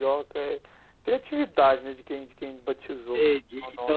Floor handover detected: Yes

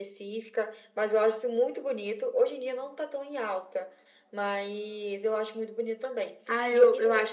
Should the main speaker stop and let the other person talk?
Yes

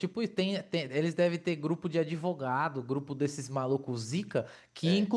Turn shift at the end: No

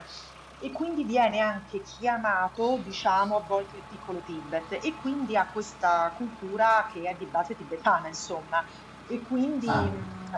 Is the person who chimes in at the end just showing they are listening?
Yes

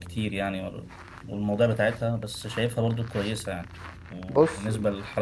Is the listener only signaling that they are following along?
Yes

